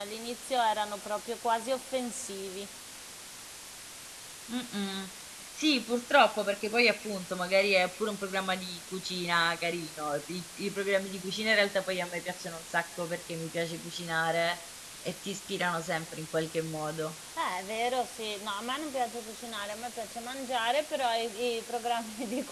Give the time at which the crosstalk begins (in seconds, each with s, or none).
none